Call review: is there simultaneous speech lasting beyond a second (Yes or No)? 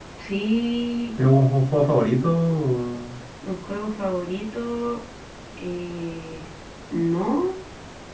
No